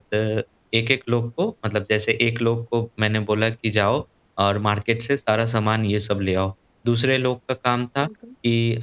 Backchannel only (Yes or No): Yes